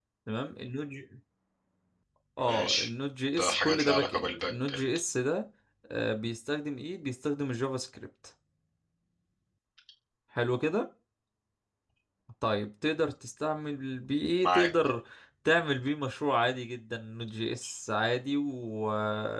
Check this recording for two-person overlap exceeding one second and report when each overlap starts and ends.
3.4-4.8

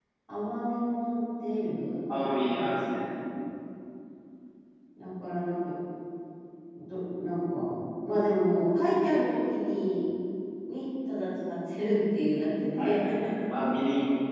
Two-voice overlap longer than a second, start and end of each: none

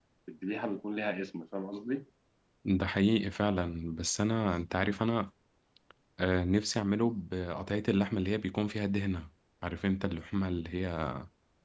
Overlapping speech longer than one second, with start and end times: none

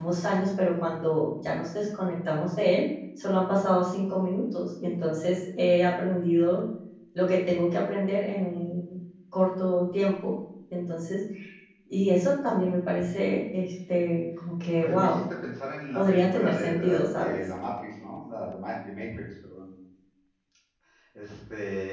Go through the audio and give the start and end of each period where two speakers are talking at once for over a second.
15.9-17.4

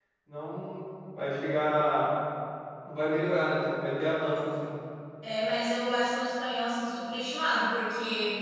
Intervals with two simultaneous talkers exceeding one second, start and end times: none

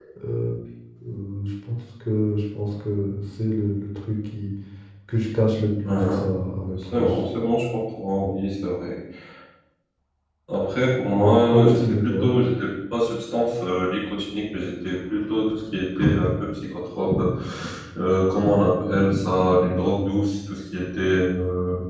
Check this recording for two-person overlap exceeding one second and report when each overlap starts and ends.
11.1-12.3

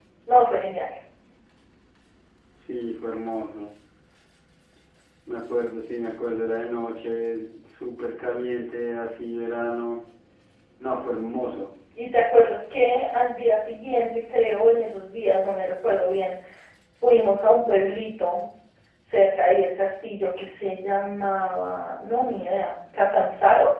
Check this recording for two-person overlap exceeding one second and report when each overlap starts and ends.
none

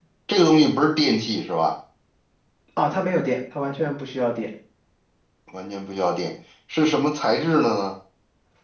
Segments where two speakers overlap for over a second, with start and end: none

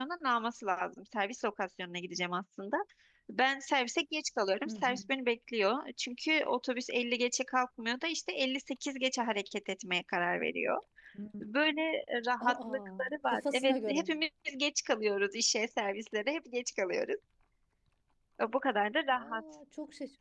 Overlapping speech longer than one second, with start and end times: 12.4-14.1

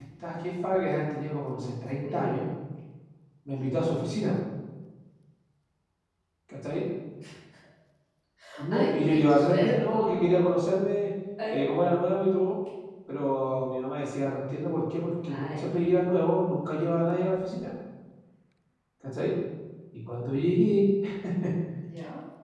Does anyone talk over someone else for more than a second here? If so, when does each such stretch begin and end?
8.7-10.3

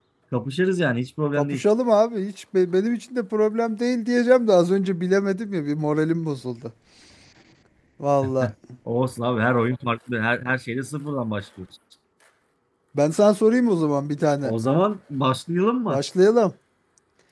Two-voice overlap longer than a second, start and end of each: none

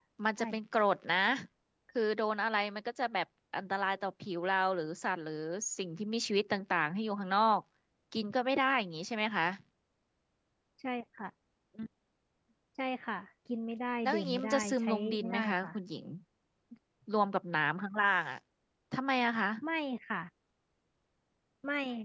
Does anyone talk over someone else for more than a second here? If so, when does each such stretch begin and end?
14.0-15.7

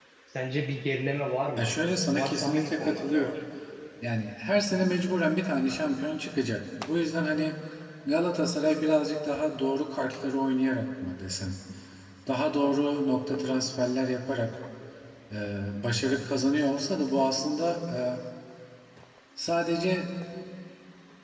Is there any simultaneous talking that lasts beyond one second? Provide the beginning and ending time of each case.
2.1-3.4

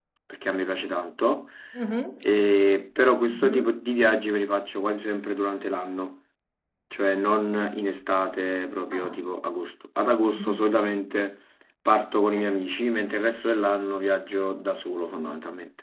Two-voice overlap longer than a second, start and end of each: none

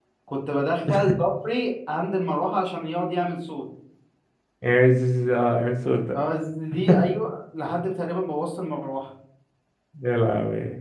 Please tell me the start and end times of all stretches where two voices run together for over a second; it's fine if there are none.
none

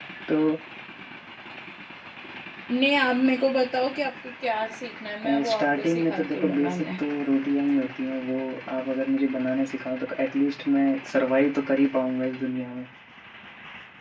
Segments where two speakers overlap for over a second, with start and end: 5.5-6.8

